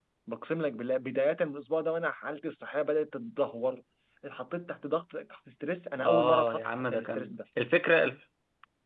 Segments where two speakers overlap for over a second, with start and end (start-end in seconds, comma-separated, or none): 6.0-7.3